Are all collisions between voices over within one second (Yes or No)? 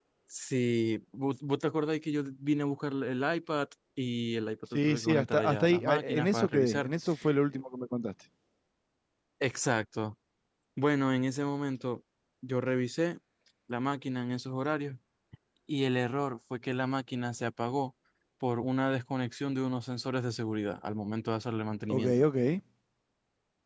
No